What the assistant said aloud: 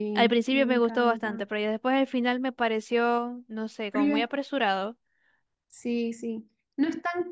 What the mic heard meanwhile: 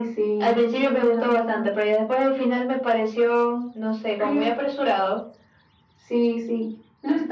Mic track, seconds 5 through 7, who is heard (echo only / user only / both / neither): echo only